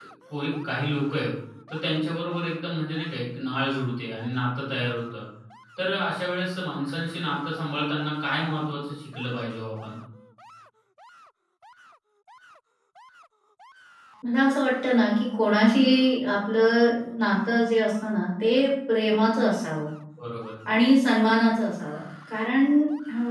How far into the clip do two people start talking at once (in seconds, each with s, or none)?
none